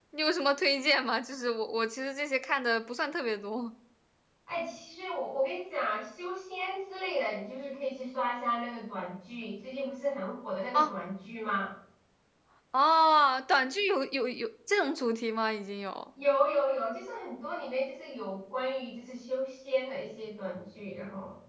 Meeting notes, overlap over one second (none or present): none